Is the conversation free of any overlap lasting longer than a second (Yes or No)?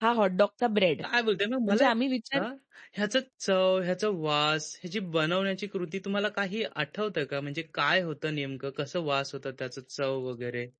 Yes